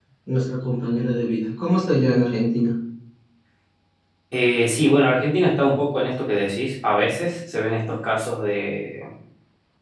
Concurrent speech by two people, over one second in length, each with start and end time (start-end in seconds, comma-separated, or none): none